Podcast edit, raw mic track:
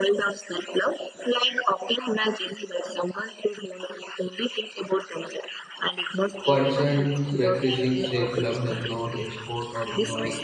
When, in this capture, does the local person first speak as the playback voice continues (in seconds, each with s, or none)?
6.4 s